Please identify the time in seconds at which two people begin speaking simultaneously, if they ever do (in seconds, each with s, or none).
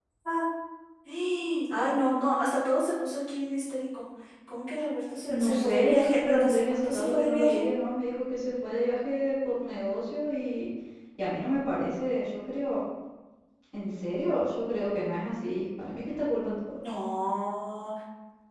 5.3 s